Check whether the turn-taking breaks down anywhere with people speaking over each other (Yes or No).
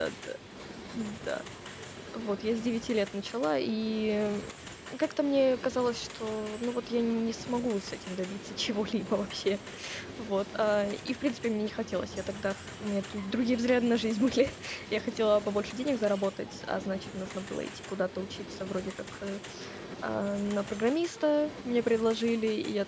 No